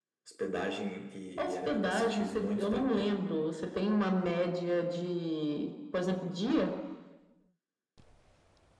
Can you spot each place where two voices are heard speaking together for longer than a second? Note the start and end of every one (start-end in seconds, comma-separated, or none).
1.4-3.1